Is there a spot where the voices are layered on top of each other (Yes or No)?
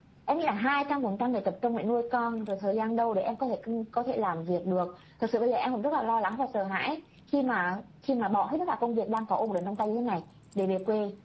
No